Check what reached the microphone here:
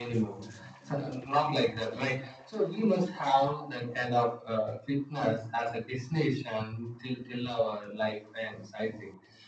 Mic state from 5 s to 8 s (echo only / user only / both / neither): echo only